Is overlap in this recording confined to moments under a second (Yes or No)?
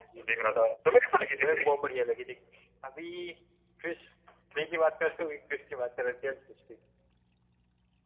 Yes